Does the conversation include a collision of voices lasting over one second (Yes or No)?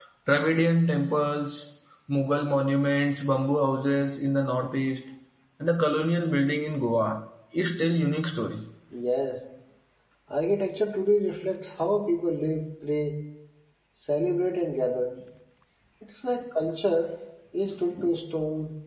No